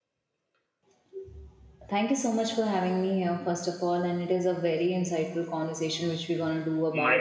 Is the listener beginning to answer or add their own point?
No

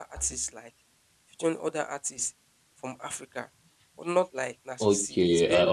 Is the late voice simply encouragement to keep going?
No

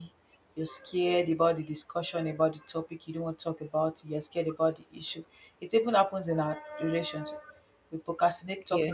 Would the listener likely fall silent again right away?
Yes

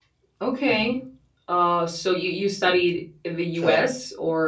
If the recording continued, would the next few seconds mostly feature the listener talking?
No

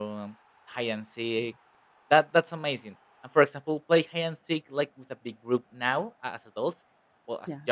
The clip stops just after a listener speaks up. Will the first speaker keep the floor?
Yes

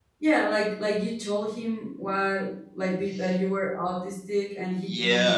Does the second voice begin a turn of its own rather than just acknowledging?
Yes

